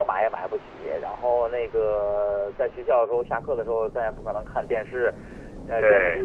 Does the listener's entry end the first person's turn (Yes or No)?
No